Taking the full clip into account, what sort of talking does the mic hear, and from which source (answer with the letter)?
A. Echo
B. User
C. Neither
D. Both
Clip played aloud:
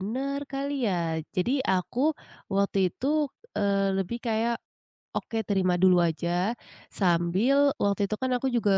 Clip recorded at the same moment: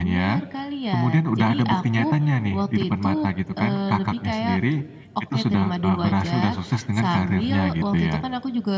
D